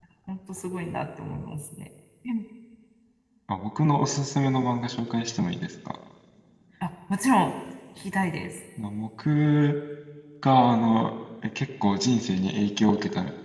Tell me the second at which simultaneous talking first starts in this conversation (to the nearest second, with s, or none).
none